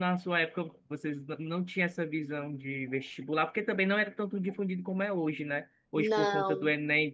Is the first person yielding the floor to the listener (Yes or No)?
No